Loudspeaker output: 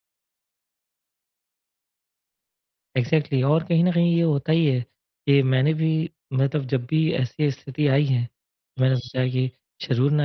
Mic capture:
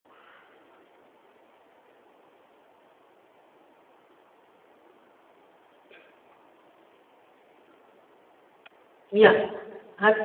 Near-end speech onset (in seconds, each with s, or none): 9.1 s